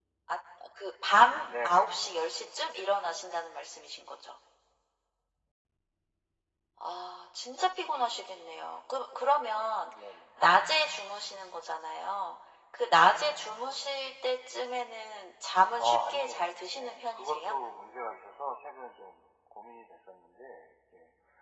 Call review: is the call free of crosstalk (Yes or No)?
No